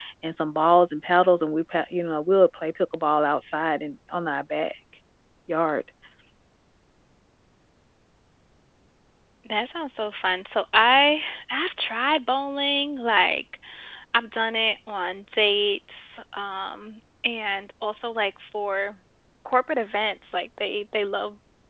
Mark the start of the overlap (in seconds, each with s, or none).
none